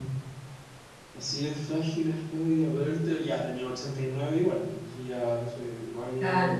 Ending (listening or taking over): taking over